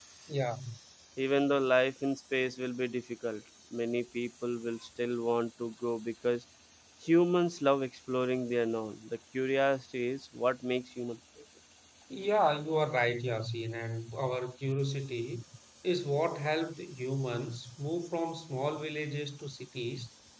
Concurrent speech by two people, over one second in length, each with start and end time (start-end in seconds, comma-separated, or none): none